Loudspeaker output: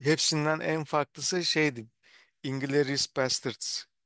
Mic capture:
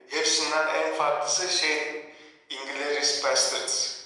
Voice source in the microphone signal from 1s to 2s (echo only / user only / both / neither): echo only